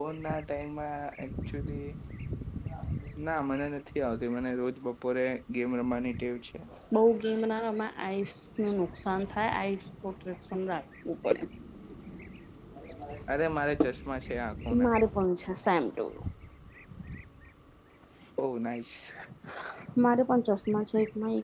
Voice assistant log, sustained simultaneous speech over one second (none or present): none